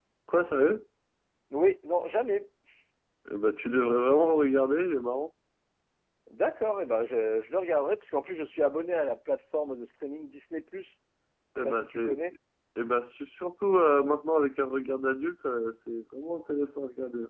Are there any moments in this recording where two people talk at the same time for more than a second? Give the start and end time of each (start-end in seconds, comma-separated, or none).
none